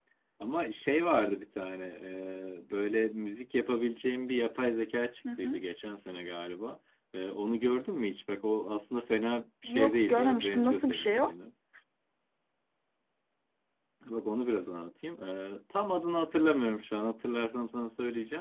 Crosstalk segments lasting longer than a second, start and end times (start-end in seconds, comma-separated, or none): 9.6-11.3